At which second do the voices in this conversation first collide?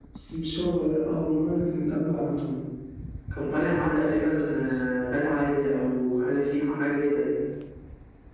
3.5 s

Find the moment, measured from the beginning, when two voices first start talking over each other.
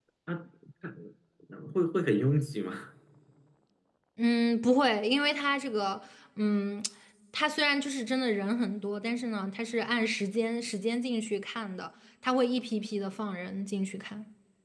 none

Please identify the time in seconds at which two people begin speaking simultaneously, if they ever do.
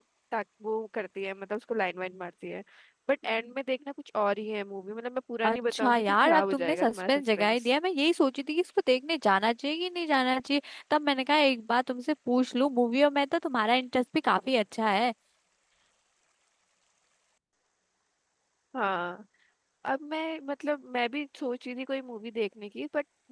5.4 s

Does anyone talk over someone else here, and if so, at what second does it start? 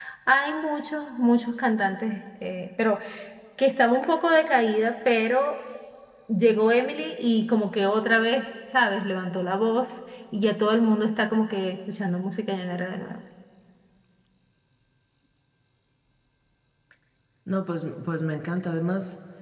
none

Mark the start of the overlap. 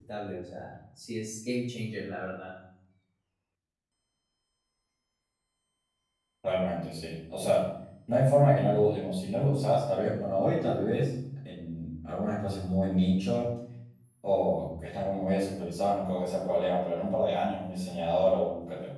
none

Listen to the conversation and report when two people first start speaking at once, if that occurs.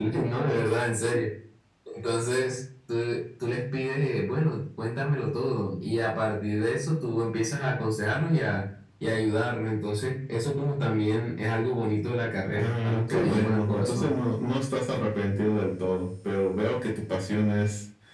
12.5 s

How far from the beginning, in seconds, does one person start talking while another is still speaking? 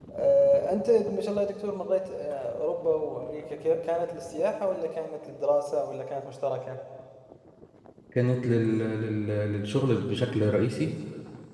none

